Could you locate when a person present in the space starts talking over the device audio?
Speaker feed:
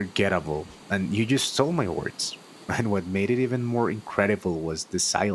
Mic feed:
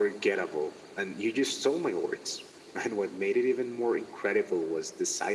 none

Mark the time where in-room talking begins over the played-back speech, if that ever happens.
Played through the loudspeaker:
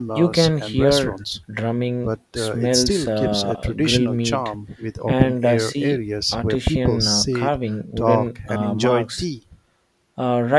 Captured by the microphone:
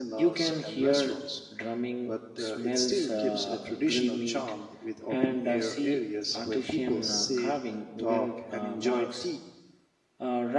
none

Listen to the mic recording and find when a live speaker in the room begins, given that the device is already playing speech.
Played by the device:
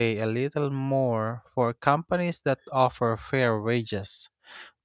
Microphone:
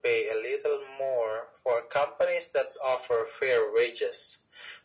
none

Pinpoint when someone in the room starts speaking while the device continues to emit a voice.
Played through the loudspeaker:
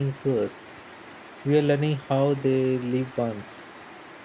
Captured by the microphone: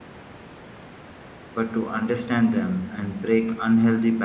2 s

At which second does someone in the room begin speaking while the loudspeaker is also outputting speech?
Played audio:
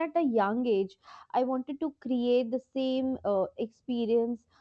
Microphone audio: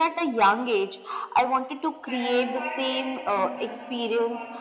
2 s

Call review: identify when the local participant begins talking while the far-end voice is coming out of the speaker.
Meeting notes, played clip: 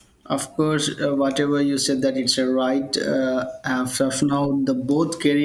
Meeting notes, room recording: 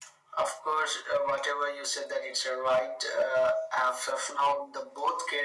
none

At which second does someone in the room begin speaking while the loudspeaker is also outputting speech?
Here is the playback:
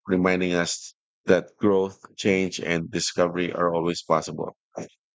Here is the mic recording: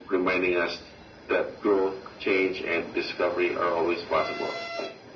none

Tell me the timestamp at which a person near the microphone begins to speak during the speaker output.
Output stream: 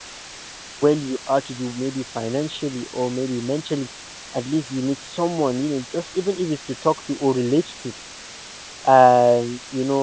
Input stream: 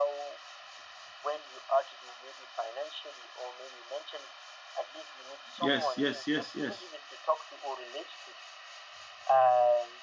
6 s

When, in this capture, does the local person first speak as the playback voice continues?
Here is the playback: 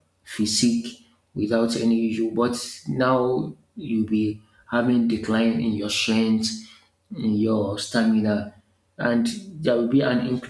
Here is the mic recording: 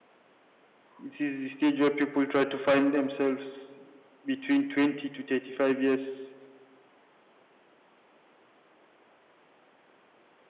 1 s

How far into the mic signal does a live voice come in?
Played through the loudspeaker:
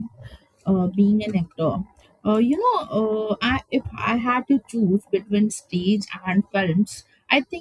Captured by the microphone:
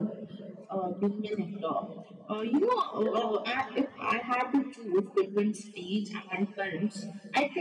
3 s

